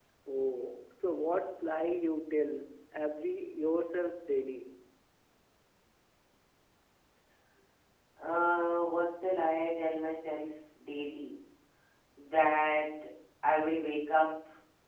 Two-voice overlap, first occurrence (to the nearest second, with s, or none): none